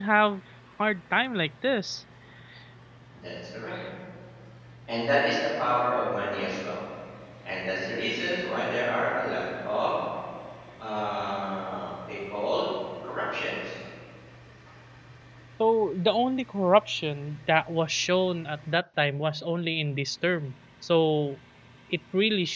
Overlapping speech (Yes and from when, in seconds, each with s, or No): No